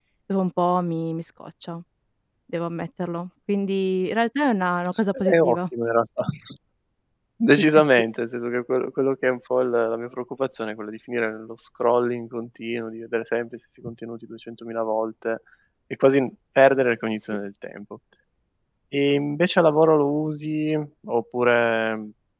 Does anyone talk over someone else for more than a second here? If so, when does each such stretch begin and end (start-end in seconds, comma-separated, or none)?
none